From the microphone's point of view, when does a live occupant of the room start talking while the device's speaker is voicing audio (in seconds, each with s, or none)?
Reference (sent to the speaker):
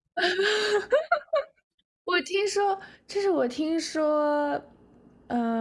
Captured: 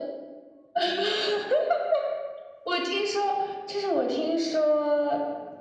none